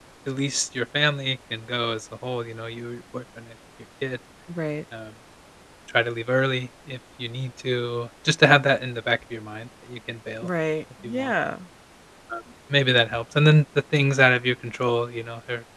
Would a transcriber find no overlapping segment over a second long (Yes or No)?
Yes